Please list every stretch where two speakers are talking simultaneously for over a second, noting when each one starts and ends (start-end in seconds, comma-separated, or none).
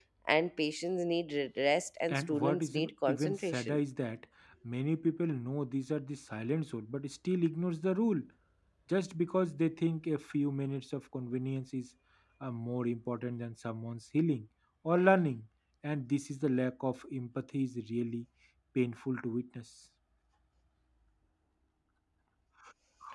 2.1-3.8